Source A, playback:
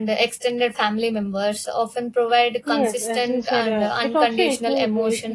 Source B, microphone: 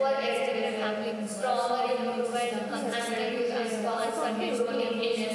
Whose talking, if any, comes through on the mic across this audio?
both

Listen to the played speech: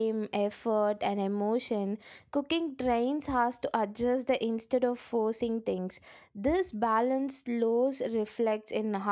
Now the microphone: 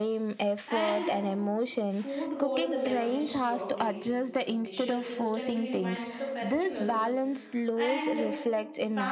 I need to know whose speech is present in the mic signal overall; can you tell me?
both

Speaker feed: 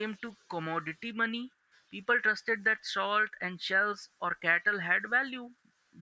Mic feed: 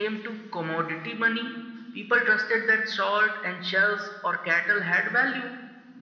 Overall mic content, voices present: echo only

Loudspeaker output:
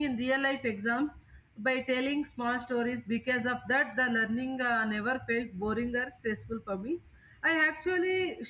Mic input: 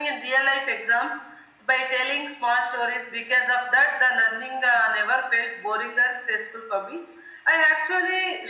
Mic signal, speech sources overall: echo only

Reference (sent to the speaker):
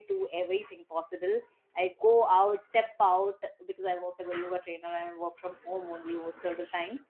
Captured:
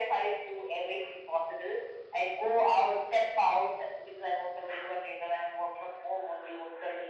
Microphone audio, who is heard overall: echo only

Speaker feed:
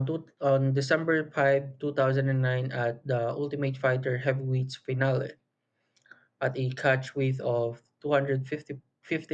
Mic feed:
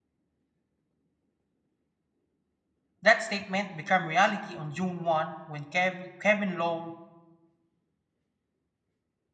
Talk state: user only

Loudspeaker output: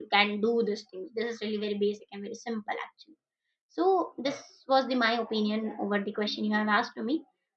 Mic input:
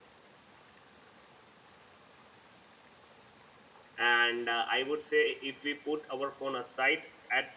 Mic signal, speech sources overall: user only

